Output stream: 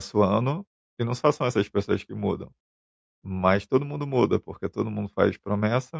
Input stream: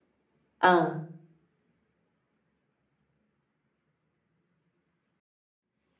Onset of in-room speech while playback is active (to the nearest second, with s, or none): 1 s